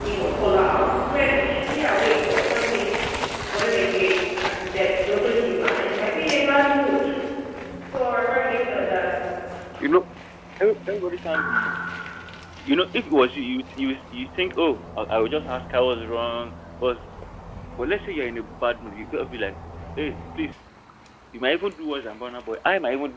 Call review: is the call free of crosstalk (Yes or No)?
Yes